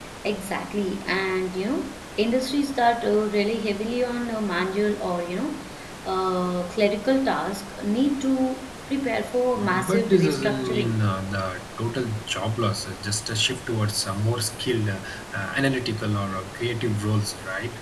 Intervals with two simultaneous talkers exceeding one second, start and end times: 9.8-11.0

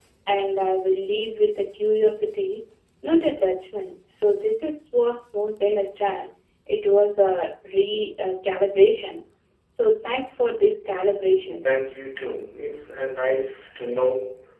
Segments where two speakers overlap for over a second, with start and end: none

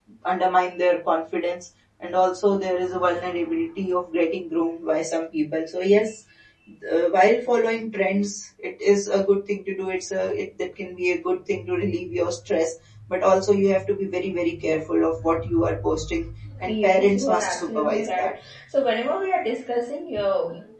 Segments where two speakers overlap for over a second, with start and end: 16.6-18.3

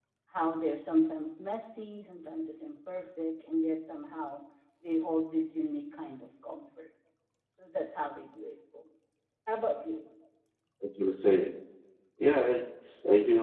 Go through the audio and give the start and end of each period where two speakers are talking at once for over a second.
none

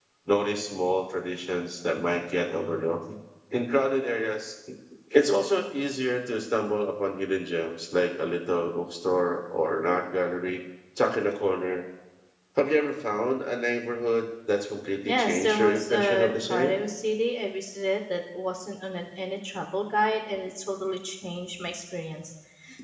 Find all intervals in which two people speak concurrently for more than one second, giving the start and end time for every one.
15.1-16.7

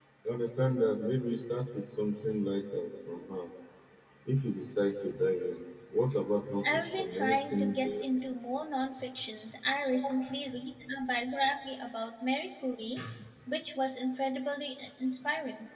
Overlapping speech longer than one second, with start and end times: 6.7-8.0

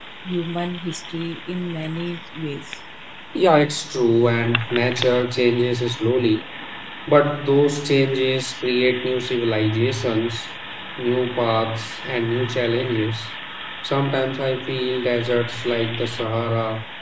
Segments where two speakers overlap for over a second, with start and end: none

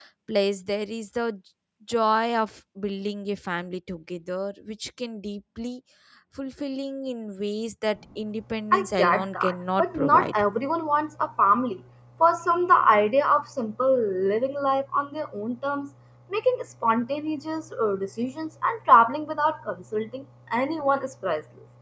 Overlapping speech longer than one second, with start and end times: 8.7-10.4

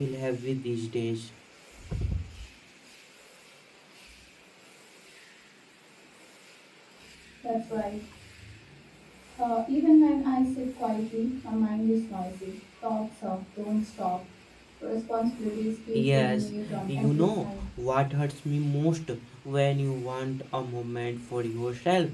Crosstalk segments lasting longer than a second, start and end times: 15.9-17.6

